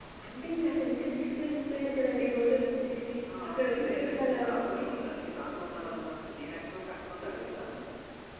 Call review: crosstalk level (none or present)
present